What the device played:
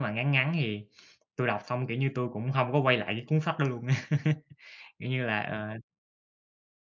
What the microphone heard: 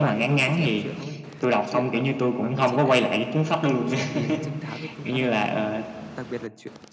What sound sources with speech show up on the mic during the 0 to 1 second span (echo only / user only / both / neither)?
both